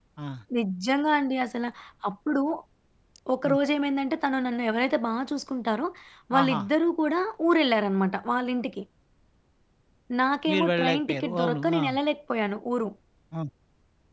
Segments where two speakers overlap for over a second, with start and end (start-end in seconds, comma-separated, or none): 10.5-11.8